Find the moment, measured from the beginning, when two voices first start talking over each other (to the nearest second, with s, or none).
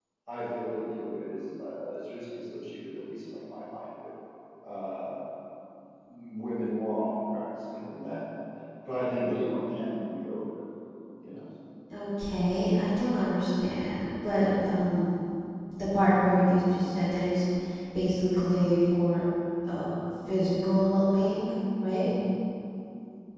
none